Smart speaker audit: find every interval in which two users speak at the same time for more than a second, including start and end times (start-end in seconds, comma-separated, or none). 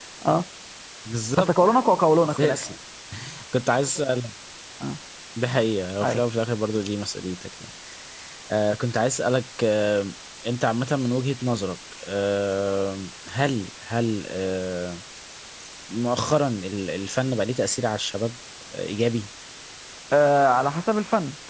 none